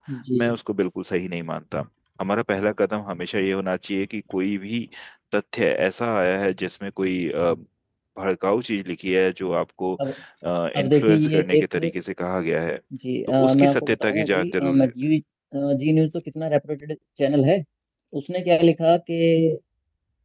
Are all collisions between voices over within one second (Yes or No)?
No